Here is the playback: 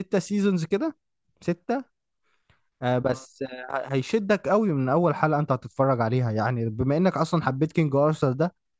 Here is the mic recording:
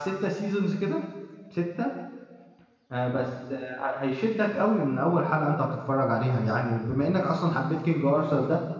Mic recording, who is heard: echo only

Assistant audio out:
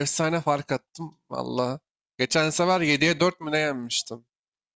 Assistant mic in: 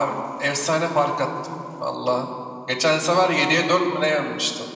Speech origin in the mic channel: echo only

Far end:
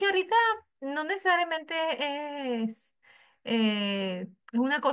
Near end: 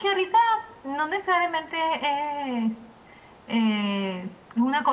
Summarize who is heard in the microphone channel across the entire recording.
echo only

